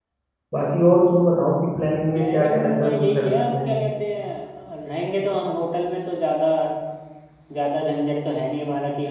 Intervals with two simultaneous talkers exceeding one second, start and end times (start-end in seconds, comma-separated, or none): 2.2-3.7